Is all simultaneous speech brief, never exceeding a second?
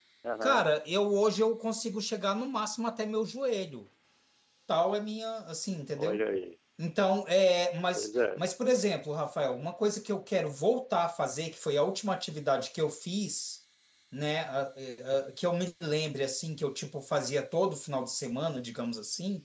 Yes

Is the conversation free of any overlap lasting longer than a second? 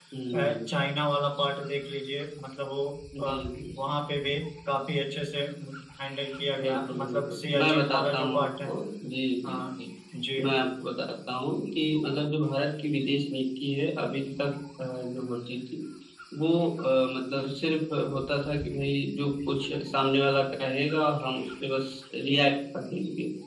No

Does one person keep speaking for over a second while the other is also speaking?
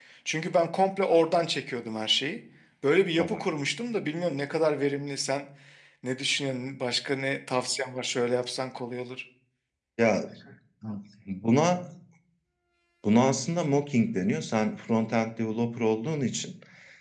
No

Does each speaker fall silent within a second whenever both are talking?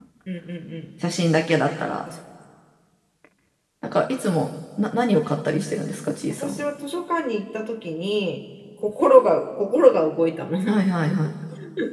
Yes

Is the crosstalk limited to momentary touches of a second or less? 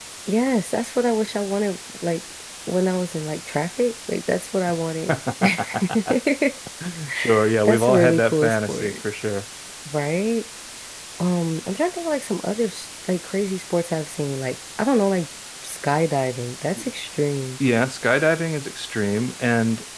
No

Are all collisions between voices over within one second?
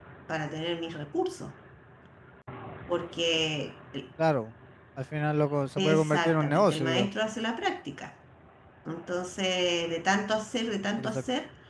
No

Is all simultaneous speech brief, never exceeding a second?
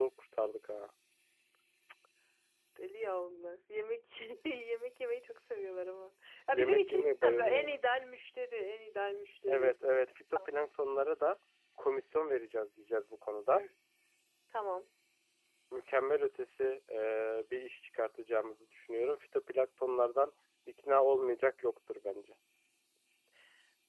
No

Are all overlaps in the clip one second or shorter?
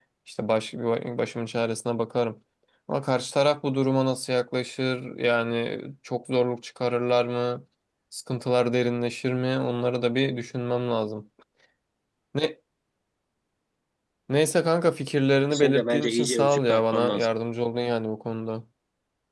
No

